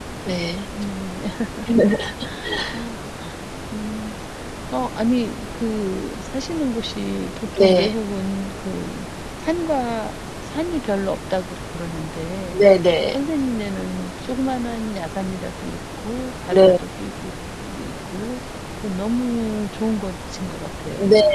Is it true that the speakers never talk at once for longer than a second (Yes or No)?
Yes